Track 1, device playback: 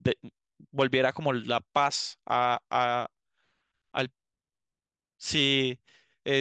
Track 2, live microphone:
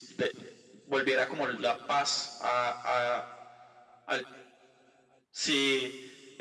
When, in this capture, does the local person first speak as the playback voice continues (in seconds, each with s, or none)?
none